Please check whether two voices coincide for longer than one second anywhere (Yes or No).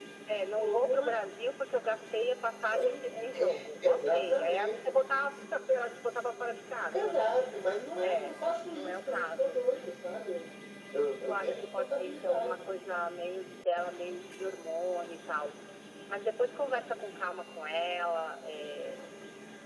Yes